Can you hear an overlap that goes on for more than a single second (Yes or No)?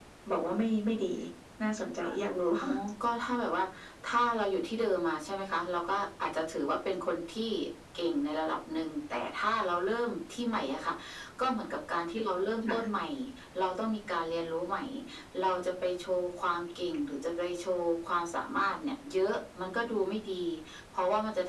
No